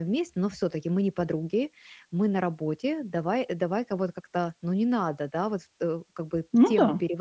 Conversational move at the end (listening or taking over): listening